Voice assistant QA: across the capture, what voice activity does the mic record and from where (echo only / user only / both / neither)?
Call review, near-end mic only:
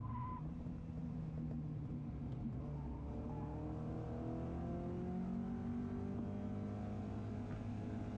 neither